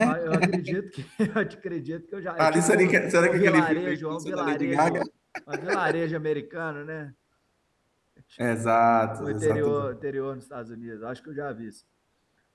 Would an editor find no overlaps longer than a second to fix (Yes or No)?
No